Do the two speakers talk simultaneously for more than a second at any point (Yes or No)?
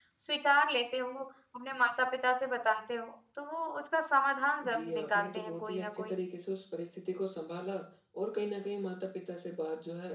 Yes